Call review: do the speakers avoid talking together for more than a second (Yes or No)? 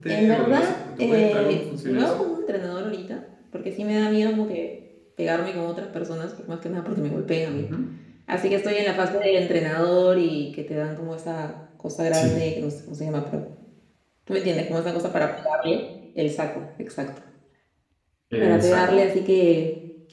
No